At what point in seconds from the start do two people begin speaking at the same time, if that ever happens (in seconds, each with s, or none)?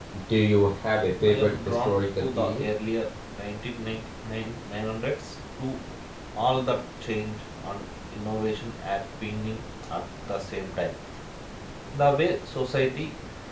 1.3 s